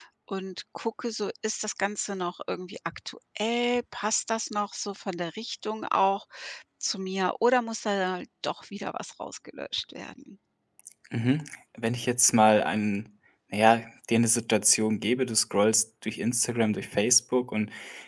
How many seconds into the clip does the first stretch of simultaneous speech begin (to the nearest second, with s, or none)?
none